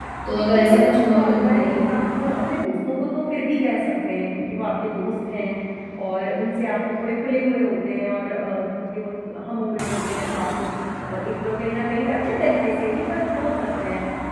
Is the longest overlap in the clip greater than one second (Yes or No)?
Yes